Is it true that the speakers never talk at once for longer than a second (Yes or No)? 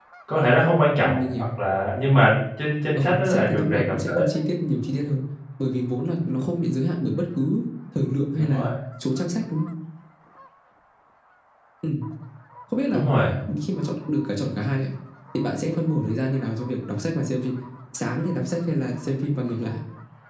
No